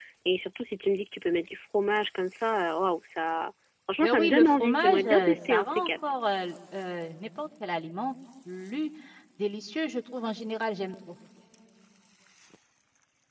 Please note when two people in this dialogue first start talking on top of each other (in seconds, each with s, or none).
4.0 s